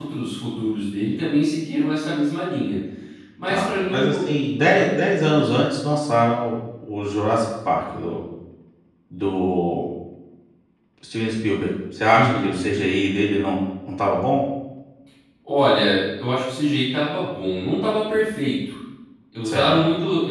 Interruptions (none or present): present